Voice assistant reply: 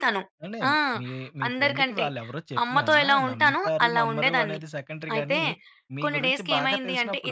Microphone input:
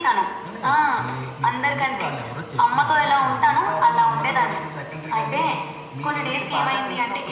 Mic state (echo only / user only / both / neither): echo only